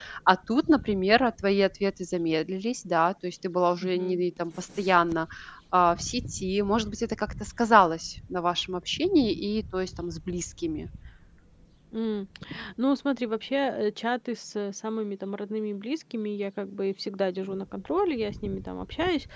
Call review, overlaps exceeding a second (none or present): none